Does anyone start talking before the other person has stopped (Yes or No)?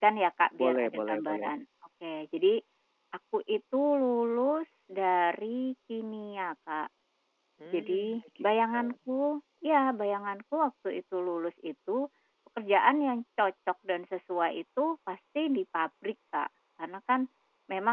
Yes